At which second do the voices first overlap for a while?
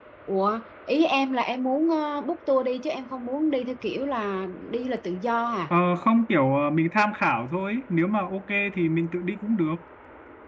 none

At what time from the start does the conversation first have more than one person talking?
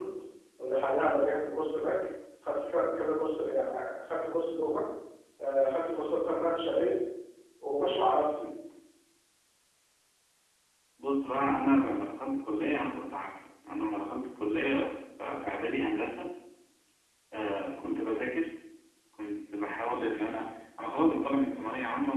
none

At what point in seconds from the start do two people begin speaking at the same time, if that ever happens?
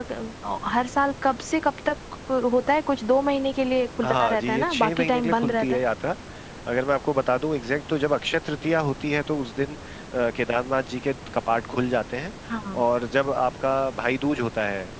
4.0 s

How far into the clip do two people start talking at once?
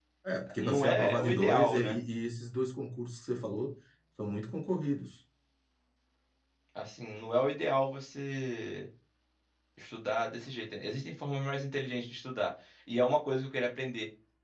0.6 s

